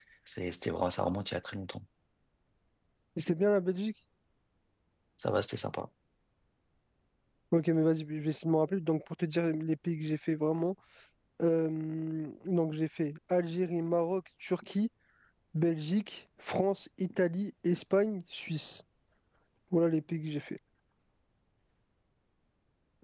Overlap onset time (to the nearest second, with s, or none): none